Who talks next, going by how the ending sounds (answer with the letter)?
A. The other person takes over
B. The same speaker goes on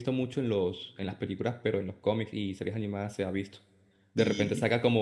B